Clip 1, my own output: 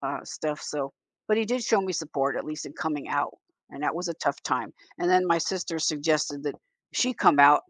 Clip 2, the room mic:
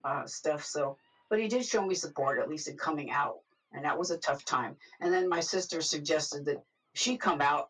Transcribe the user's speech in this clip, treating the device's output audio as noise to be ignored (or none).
none